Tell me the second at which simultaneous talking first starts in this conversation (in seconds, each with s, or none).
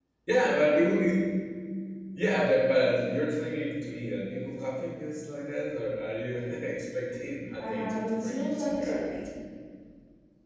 7.6 s